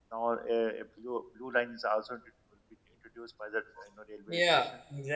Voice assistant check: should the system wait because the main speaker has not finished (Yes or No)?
No